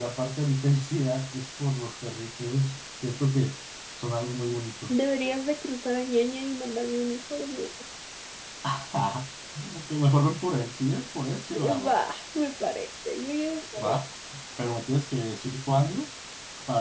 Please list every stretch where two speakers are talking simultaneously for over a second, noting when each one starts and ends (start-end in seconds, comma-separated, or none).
none